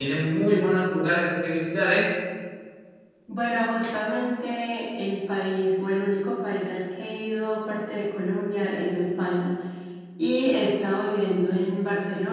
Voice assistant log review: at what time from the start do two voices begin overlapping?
none

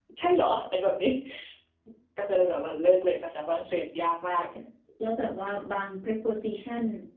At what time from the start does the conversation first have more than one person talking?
none

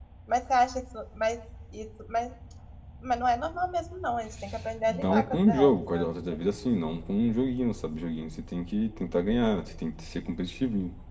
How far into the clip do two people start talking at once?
4.9 s

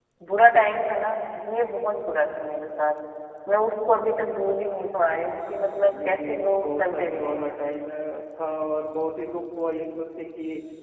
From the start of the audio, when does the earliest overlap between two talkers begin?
5.9 s

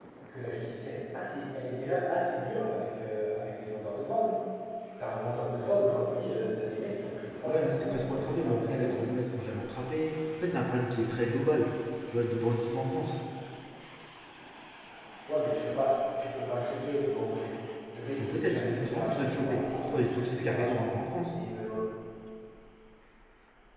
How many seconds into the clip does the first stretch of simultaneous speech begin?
7.5 s

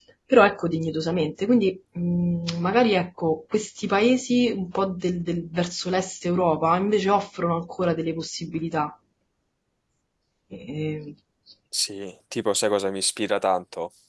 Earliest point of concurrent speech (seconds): none

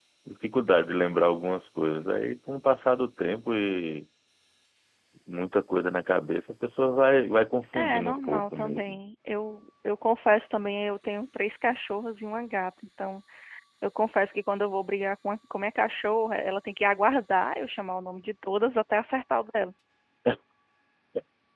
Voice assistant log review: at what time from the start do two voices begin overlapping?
7.7 s

